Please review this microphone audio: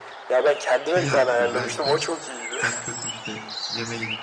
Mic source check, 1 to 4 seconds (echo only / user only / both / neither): both